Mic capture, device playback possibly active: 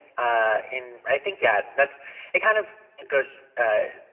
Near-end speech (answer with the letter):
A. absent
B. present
A